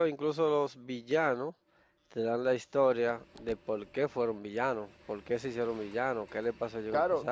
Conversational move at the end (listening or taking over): taking over